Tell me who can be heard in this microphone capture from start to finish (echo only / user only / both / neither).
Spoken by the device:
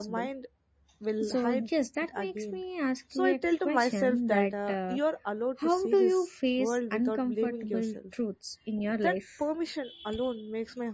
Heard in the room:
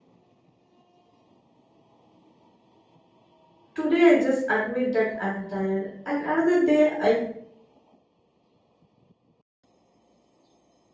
user only